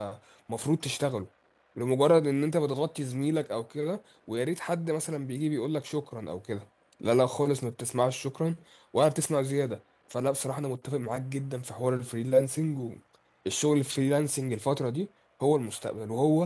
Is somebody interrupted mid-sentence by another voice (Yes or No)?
No